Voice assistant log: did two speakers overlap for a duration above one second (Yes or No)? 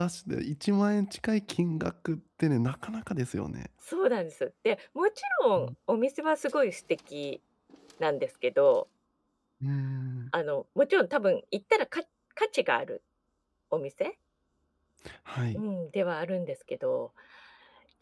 No